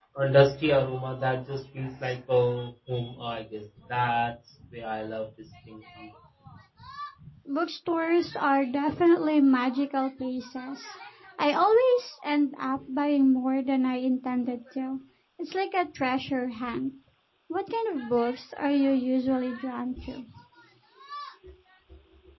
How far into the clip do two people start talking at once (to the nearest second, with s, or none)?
none